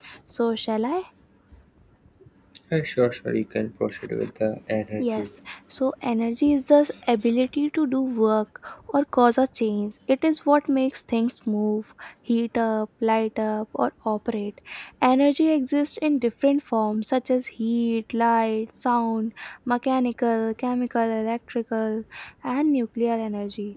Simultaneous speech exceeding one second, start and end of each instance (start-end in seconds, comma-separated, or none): none